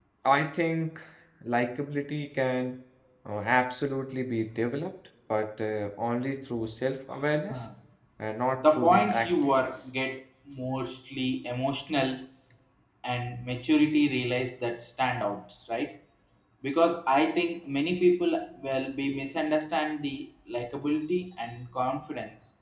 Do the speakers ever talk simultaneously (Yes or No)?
Yes